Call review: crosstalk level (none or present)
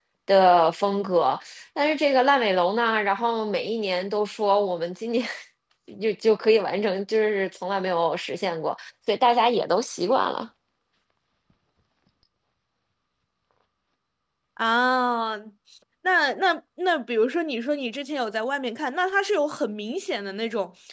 none